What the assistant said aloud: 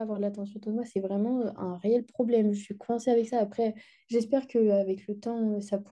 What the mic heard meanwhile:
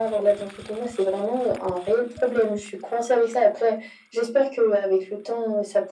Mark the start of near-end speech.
none

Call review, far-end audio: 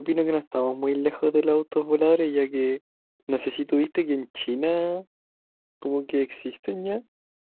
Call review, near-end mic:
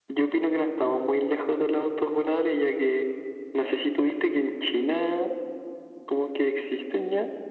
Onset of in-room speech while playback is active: none

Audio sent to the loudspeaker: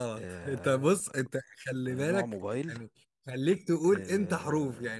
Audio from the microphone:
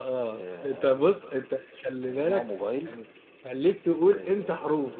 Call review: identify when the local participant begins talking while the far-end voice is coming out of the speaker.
none

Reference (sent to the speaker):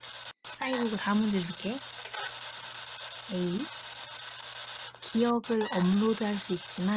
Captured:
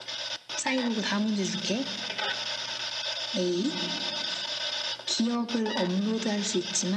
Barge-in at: none

